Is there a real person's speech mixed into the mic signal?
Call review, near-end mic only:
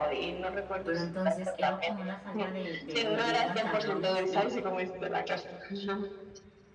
Yes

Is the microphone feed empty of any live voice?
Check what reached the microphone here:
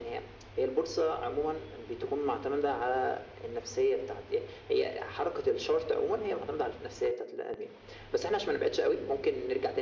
Yes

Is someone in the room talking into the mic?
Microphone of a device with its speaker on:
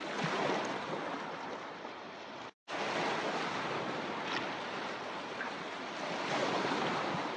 No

